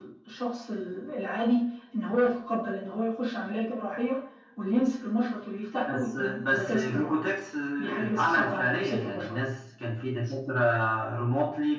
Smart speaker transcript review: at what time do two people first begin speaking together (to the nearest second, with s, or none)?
6 s